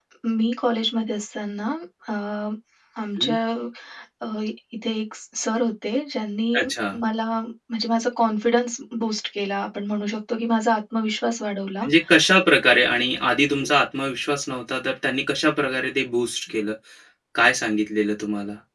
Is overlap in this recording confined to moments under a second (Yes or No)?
Yes